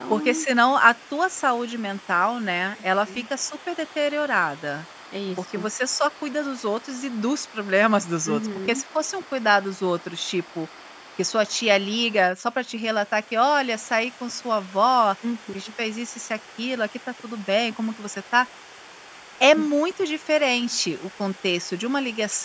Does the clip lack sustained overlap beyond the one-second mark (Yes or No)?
Yes